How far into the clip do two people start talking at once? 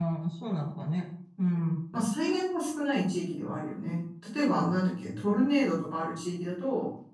none

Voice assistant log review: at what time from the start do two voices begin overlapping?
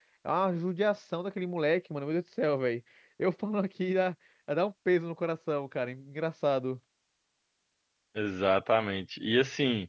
none

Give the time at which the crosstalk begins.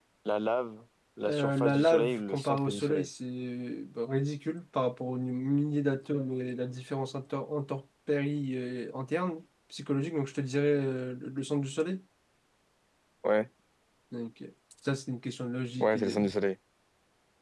1.2 s

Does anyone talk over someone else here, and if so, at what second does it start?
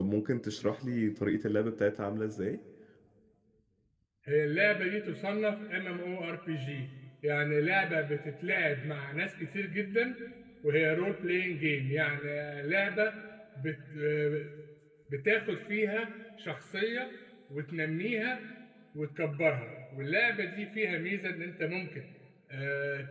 none

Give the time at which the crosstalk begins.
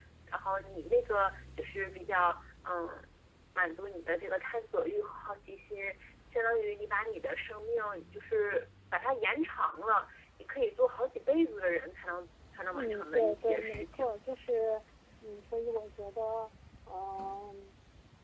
12.7 s

